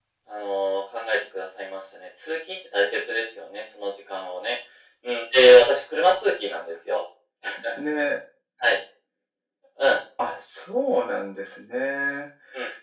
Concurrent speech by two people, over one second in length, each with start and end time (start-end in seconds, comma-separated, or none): none